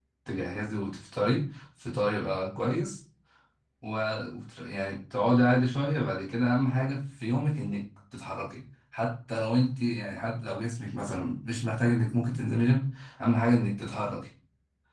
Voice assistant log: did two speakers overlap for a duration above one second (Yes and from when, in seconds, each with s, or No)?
No